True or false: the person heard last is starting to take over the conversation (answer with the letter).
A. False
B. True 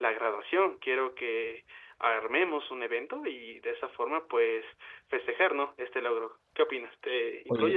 B